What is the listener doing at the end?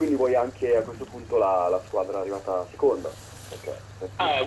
taking over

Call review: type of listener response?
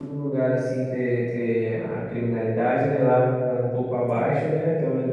listening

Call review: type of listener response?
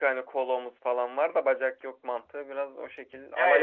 taking over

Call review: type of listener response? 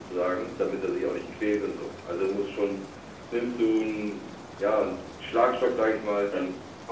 listening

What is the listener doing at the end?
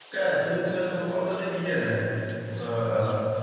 listening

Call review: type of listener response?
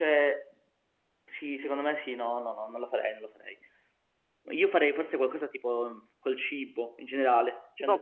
taking over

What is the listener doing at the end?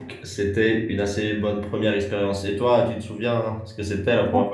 taking over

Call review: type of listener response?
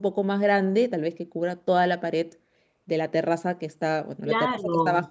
listening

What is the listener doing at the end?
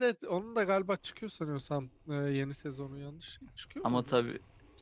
taking over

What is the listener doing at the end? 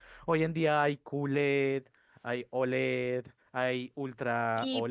taking over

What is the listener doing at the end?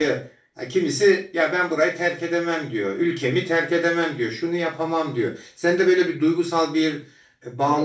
taking over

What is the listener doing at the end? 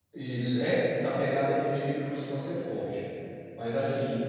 listening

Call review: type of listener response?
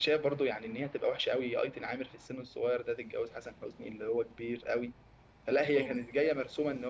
listening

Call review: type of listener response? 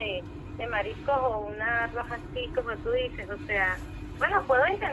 listening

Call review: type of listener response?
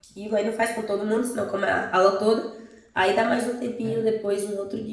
listening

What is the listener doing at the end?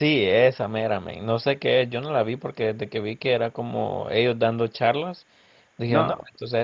listening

